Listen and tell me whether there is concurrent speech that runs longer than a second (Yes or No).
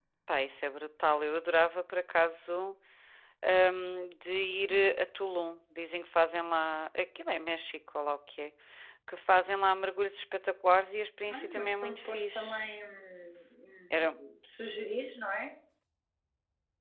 Yes